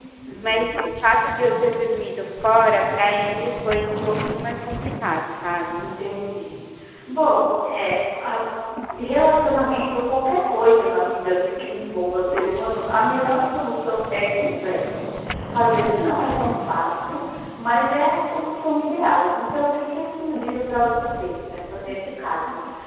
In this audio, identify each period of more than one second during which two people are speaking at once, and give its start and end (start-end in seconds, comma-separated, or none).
none